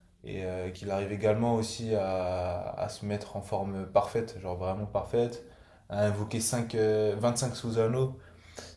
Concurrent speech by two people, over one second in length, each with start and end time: none

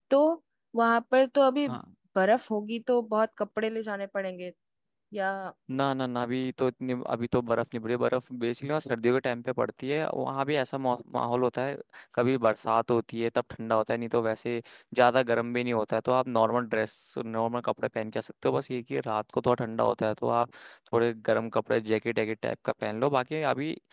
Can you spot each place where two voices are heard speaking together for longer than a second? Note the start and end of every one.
none

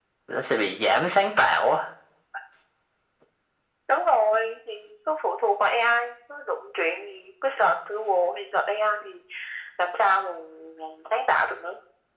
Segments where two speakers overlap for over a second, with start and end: none

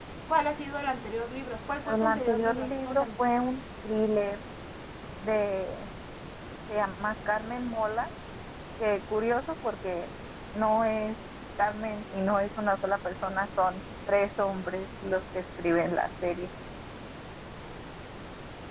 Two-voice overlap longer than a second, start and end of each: 1.8-3.0

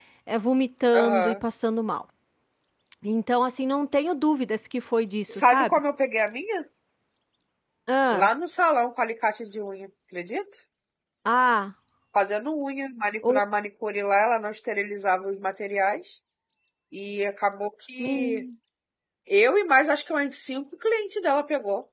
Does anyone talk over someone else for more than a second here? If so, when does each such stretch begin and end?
none

